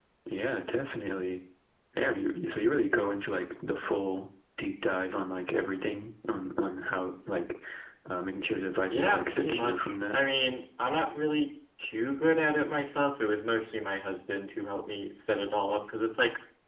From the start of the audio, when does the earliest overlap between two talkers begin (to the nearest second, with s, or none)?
9 s